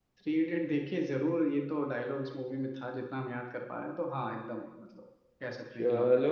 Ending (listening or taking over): taking over